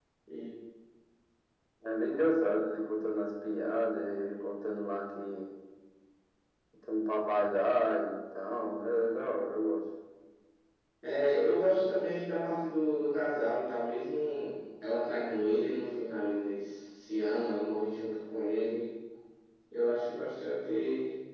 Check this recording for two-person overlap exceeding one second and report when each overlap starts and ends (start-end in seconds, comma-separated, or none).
none